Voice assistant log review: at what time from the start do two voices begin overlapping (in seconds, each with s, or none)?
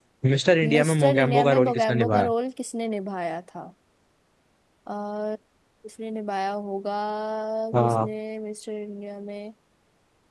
0.6 s